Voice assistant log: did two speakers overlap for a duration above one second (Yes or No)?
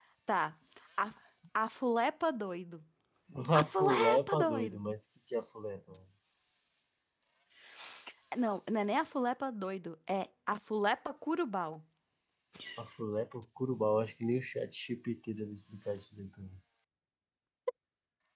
Yes